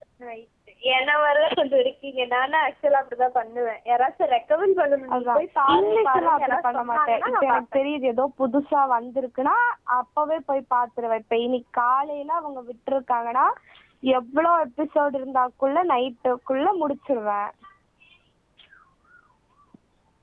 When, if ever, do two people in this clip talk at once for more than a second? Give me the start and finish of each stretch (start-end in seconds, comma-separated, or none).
5.7-7.6